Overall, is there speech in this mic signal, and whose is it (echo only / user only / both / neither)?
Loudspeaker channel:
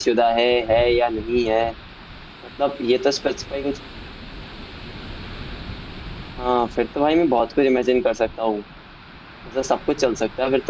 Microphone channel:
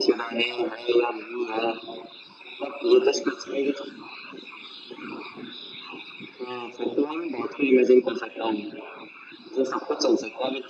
echo only